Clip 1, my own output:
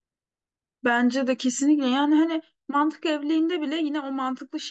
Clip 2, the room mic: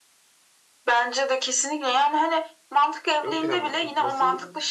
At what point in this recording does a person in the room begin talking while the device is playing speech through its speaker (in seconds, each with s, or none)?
3.2 s